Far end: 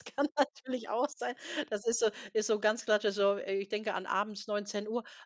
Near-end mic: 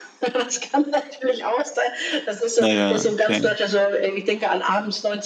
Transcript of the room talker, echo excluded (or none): Na ja, okay